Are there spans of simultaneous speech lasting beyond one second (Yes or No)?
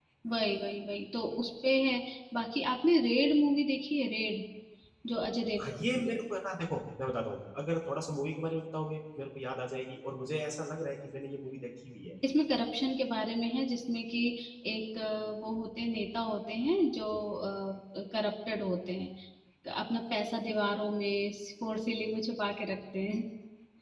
No